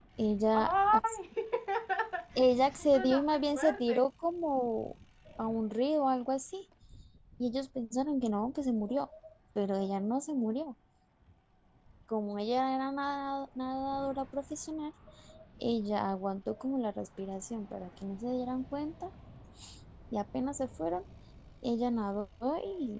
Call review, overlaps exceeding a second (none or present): present